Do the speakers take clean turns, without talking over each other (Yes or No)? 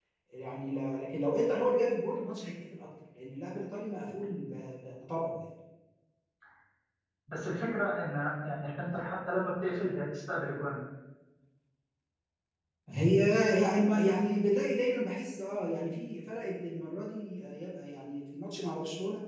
Yes